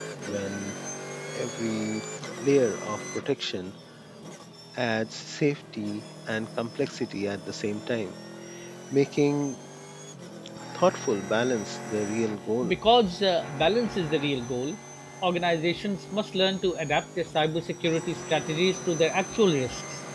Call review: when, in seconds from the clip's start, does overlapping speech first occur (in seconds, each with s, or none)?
none